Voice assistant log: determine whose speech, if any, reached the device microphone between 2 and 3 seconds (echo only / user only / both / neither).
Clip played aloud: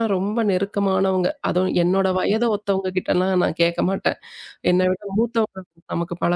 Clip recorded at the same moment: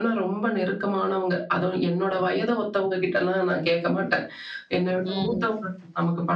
echo only